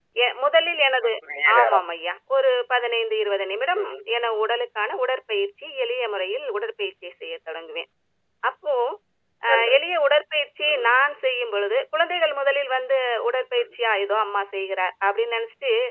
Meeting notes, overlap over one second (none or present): none